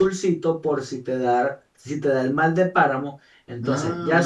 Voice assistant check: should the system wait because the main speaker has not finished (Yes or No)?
No